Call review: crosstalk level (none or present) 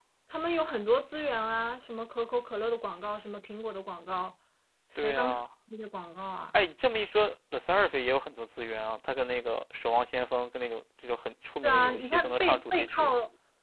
present